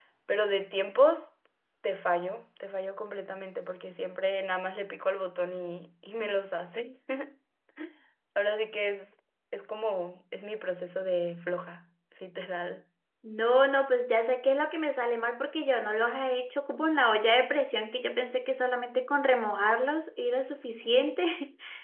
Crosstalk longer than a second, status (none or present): none